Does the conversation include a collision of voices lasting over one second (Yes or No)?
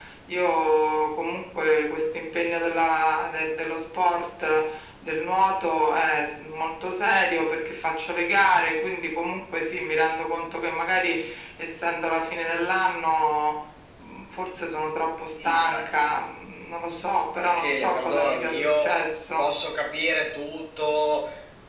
Yes